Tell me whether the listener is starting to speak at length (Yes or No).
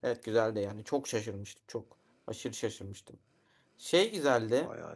No